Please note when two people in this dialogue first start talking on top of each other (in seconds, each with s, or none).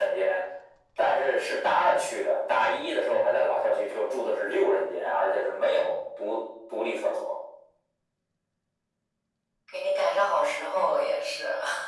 none